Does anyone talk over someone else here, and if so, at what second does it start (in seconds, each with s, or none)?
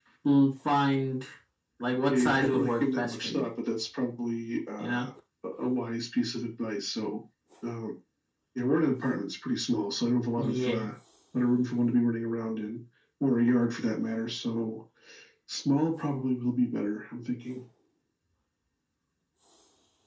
2.1 s